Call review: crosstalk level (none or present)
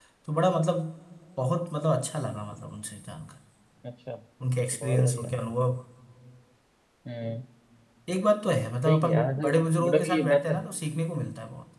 present